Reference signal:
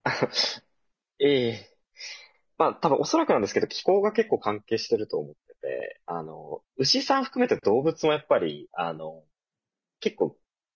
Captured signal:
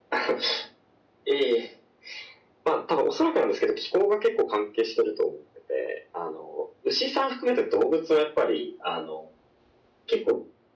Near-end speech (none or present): none